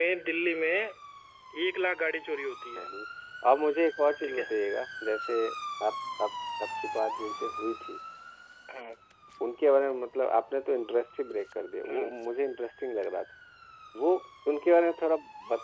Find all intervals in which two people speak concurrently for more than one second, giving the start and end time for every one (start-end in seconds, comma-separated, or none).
none